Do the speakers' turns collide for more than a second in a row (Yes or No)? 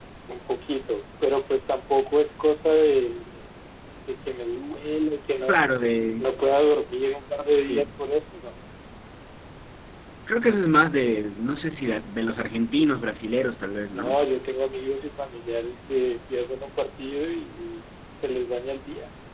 No